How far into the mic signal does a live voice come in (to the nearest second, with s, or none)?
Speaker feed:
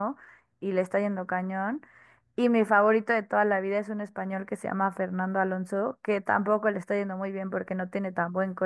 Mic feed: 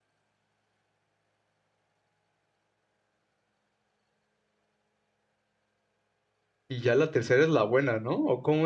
7 s